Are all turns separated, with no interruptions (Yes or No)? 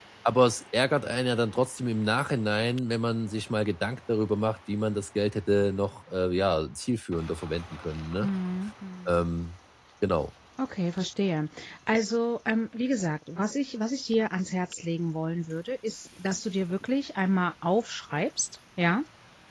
Yes